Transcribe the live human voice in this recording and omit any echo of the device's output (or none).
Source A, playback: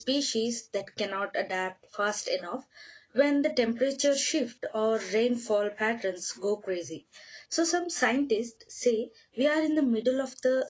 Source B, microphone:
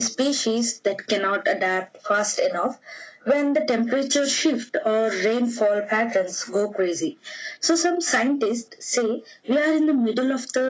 none